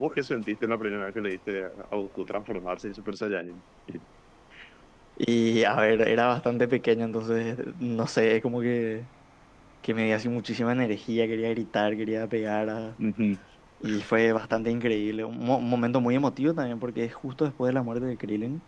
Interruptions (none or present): none